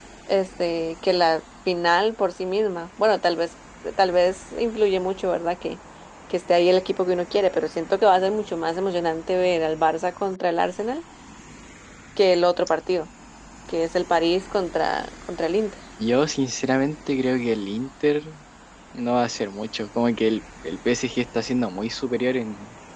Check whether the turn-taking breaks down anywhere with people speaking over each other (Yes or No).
No